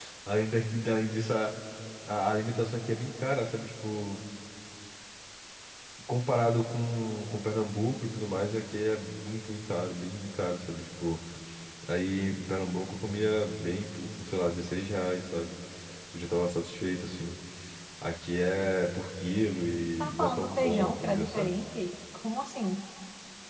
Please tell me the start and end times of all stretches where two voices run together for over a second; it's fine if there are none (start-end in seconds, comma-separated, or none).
20.0-21.5